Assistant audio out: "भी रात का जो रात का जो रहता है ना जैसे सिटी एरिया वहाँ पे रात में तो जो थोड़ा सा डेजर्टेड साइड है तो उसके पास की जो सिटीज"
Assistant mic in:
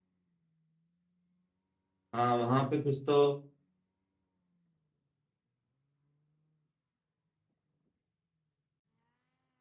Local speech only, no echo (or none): हाँ वहां पे कुछ तो